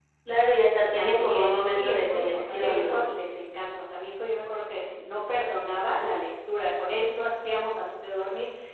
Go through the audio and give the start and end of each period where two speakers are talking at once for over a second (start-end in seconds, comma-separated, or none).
0.9-3.0